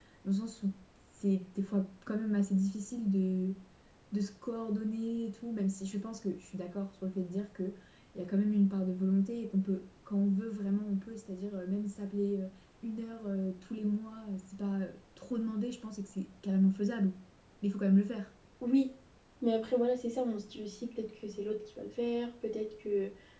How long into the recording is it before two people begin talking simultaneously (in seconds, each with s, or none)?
none